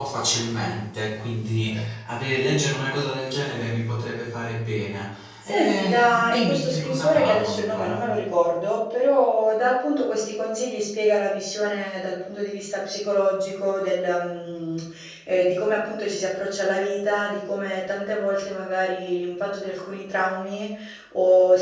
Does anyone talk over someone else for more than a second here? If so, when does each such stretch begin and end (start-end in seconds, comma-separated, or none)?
5.4-8.1